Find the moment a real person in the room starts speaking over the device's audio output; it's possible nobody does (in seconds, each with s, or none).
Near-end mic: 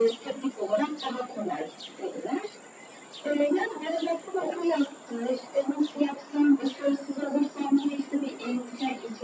none